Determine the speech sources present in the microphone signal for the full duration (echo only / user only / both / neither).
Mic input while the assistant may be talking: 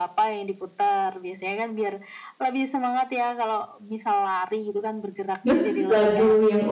both